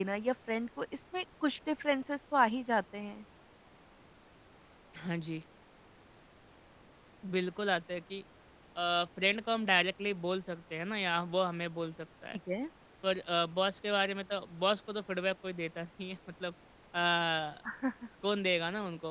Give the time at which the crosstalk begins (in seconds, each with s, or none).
none